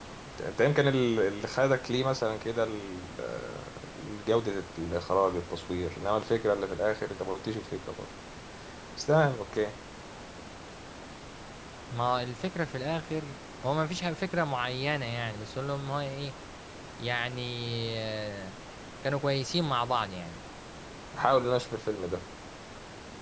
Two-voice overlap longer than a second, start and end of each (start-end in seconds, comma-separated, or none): none